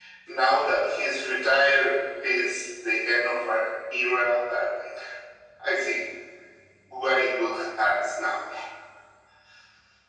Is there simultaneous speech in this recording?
No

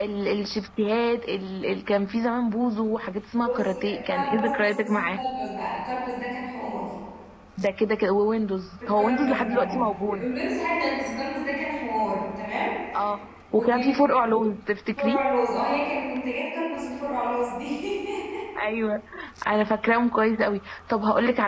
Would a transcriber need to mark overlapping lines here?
Yes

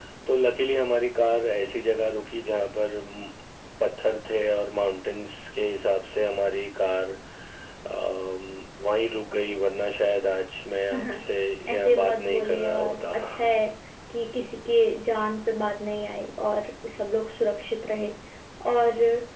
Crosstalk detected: Yes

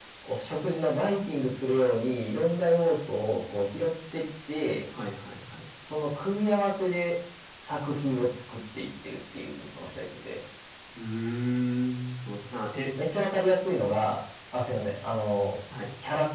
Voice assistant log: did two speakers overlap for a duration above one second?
No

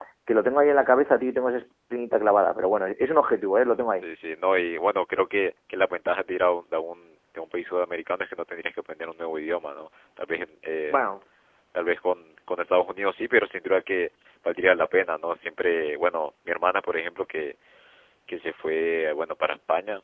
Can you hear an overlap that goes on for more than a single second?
No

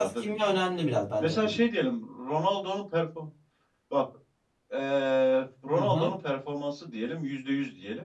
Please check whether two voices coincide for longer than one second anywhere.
No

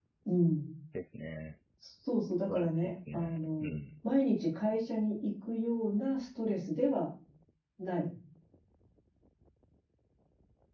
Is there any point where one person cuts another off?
Yes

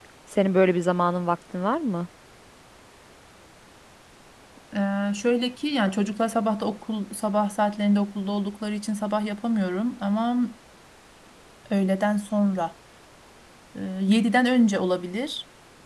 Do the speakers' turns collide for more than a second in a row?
No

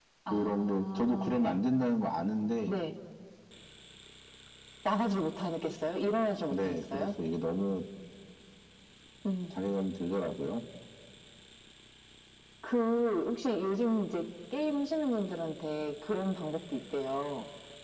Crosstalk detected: Yes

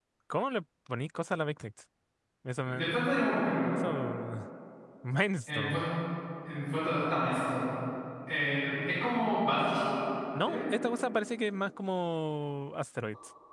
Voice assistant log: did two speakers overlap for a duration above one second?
No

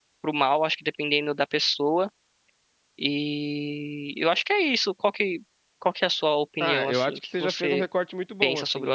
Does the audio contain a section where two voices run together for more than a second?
Yes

